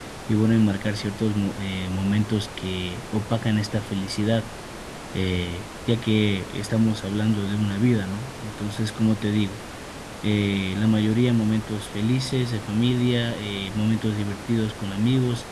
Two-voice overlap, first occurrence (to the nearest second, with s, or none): none